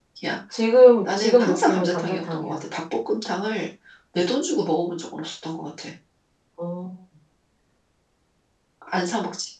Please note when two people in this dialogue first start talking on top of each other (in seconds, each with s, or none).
1.0 s